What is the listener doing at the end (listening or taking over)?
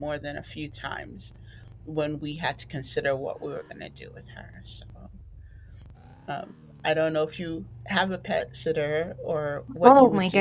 taking over